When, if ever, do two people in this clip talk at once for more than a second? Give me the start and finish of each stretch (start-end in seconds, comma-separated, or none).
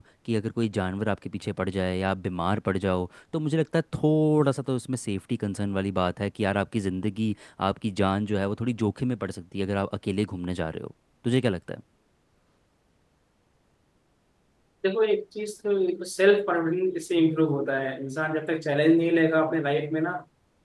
none